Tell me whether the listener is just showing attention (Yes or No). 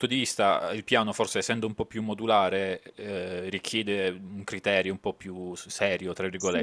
No